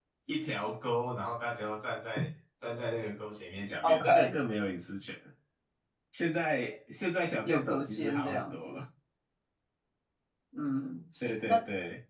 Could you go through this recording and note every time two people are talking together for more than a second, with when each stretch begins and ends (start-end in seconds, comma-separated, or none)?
7.4-8.8